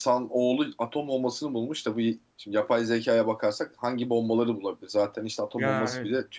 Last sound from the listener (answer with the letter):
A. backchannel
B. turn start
A